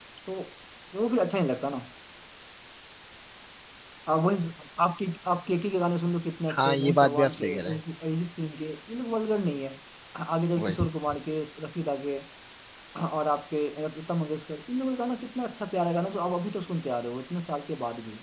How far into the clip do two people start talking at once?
6.5 s

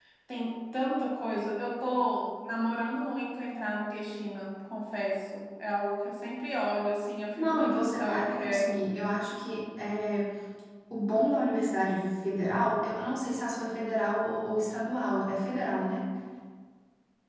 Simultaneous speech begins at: 7.4 s

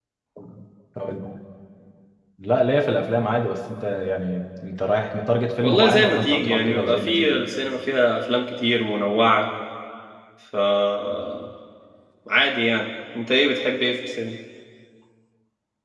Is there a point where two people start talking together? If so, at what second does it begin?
5.6 s

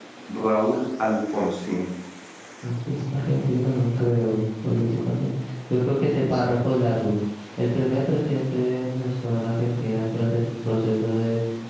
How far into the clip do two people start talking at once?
none

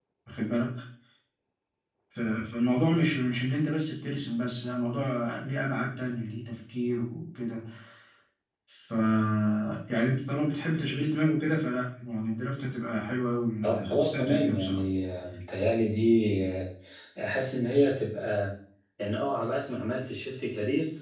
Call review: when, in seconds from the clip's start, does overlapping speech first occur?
13.6 s

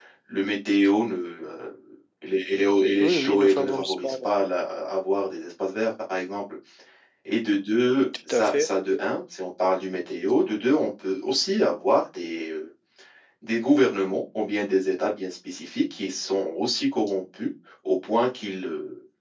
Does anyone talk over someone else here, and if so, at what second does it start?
3.0 s

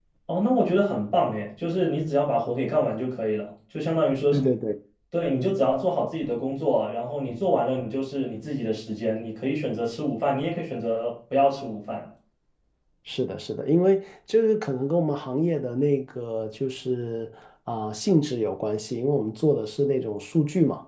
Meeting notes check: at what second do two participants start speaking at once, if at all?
none

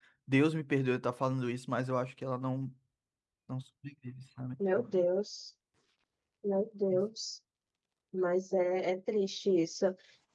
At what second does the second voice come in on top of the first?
none

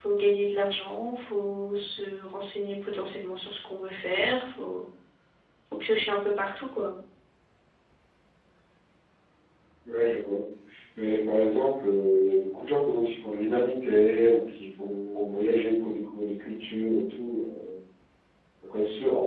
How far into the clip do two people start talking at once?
none

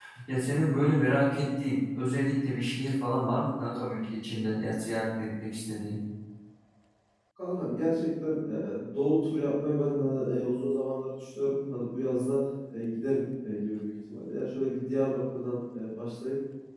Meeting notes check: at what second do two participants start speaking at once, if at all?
none

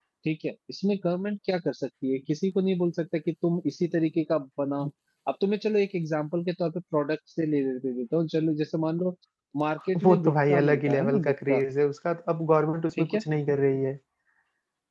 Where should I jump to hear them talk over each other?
10.0 s

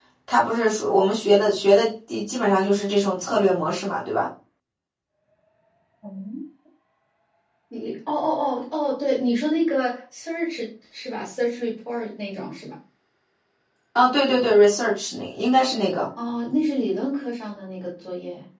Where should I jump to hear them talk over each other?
none

